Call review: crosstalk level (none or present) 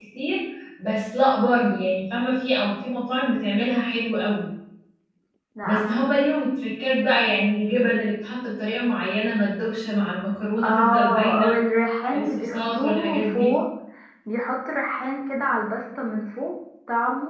present